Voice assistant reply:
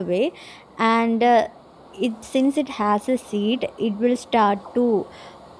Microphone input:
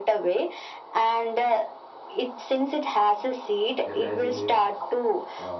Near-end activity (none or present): present